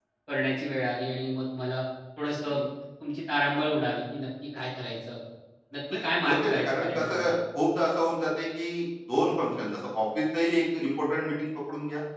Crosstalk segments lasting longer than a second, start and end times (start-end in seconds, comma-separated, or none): 5.9-7.3